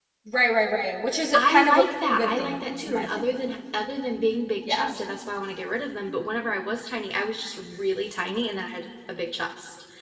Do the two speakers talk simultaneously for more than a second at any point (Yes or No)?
Yes